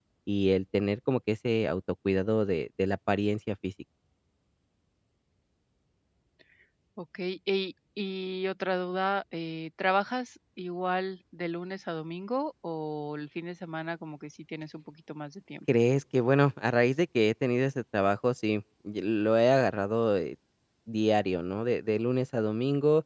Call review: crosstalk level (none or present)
none